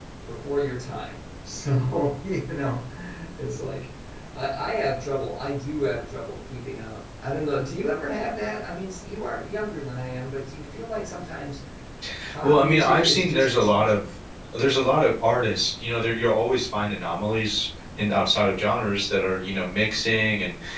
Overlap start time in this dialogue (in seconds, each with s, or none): 12.4 s